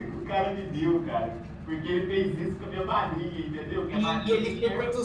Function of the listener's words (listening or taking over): taking over